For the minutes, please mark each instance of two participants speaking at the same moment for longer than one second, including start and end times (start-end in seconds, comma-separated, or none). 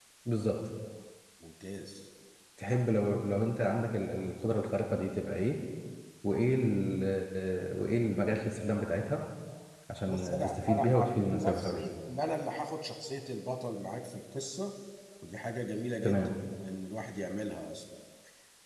10.0-11.8